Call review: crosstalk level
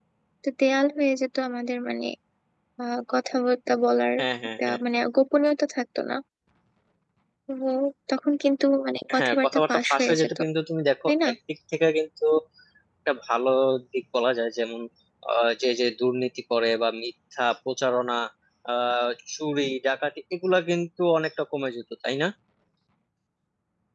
present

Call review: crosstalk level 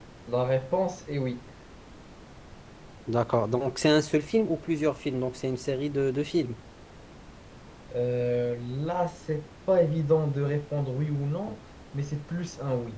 none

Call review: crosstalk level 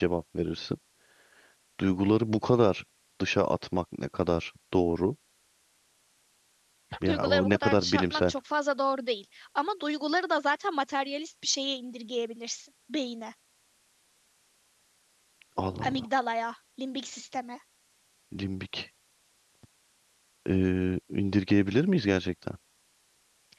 present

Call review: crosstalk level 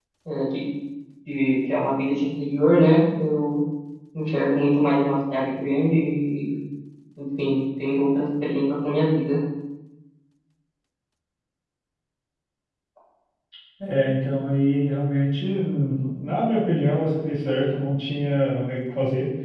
none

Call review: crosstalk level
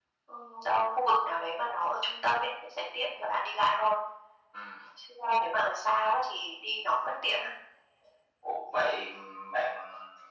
none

